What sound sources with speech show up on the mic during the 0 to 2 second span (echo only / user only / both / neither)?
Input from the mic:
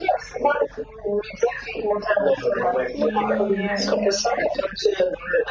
echo only